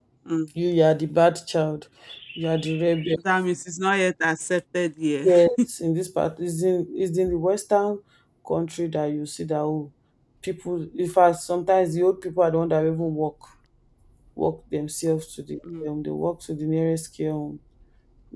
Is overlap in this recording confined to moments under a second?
Yes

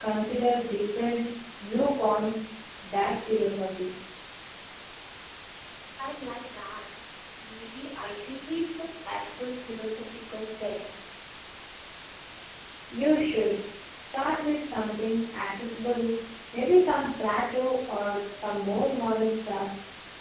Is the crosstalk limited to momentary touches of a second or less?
Yes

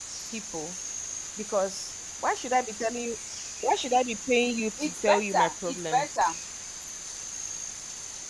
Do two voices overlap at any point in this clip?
Yes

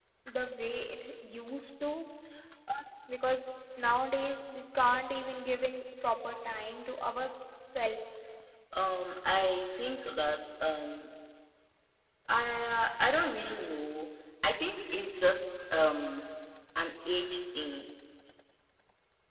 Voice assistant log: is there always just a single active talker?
Yes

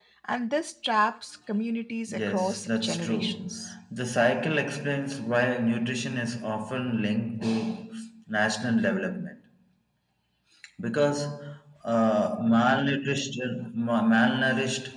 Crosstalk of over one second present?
Yes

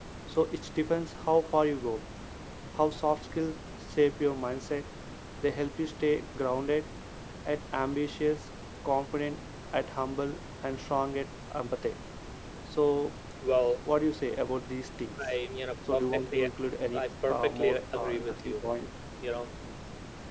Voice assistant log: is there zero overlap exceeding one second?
No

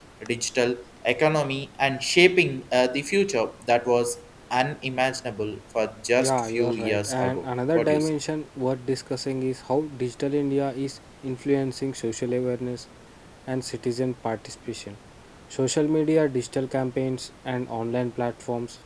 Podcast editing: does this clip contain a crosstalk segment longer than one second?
Yes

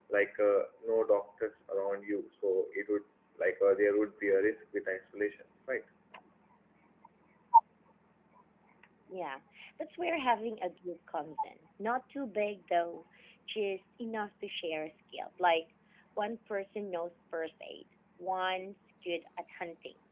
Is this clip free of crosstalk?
Yes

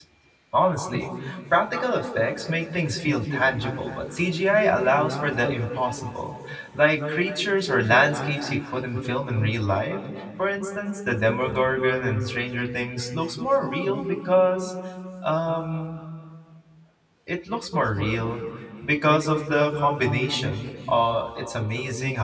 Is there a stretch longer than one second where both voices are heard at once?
No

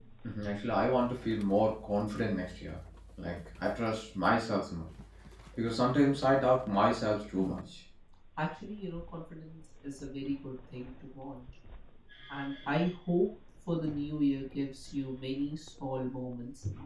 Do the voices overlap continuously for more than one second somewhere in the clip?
No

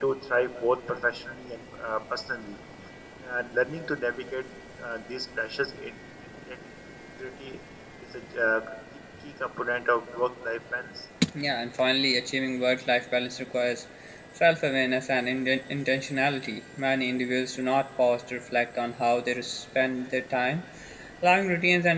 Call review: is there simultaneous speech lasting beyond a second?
No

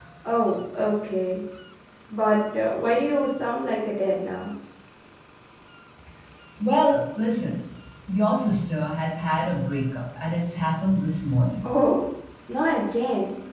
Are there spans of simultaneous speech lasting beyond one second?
No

